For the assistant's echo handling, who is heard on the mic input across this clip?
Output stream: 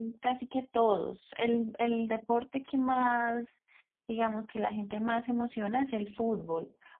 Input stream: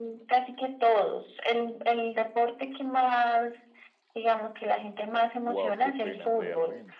both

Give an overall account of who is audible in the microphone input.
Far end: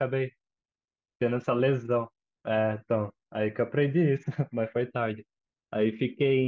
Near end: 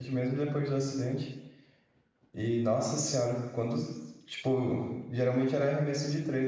user only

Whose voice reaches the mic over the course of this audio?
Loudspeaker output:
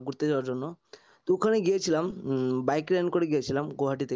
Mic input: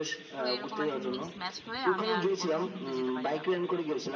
both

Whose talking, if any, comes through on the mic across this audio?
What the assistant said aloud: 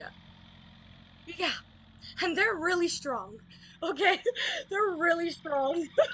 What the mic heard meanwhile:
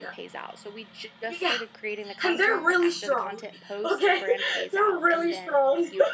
both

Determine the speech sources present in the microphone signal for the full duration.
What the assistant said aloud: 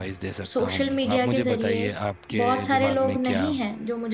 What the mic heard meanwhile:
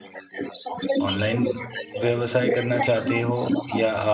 both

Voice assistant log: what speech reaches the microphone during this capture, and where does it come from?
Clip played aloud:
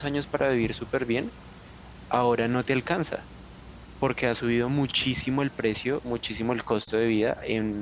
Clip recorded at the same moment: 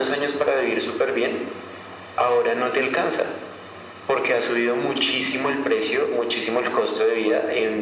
echo only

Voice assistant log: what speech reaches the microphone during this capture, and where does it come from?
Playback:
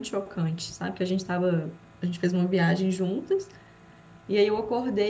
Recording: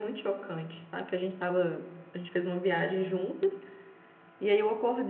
echo only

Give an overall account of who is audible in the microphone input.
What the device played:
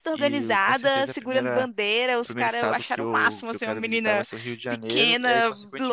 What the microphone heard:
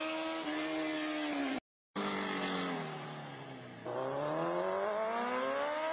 neither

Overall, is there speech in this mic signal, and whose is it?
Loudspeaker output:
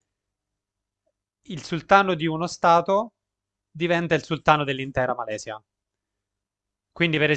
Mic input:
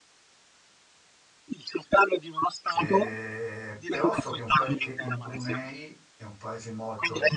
both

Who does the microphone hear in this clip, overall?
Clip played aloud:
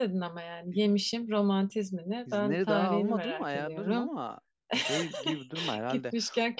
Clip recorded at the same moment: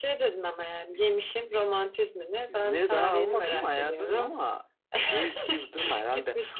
echo only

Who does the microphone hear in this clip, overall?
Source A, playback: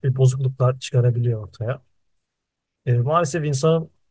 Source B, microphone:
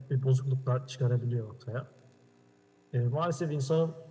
echo only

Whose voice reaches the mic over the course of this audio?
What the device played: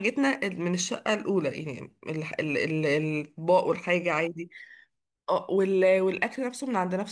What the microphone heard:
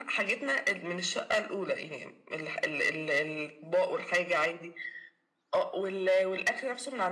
echo only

